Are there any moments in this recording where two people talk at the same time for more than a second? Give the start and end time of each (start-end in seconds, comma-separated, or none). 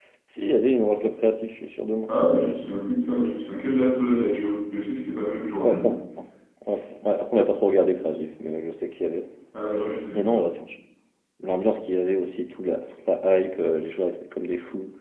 none